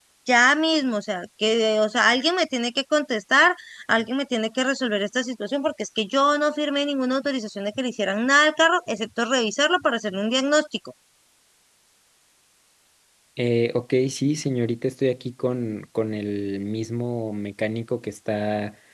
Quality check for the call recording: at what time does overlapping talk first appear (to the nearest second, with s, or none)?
none